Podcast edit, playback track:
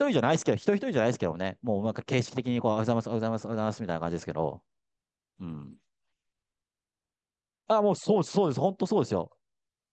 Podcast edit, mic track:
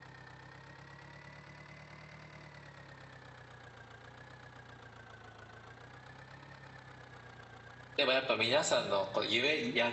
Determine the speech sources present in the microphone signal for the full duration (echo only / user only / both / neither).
user only